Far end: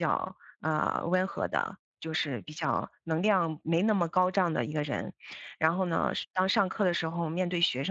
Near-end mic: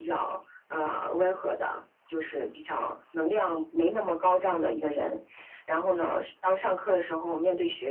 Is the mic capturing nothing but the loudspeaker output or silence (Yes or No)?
Yes